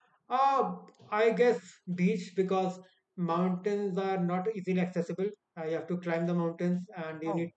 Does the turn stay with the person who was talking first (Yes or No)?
Yes